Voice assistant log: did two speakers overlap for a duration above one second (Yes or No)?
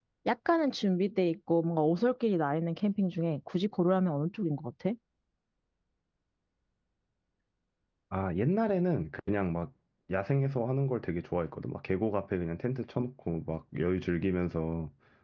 No